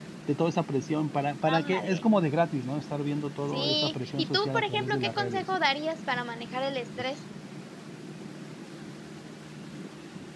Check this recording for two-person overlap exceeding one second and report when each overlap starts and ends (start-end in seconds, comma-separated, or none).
3.5-5.4